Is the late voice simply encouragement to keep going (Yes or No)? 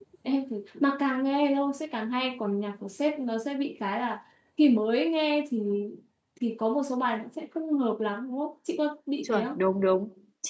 No